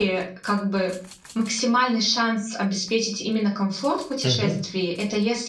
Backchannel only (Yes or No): Yes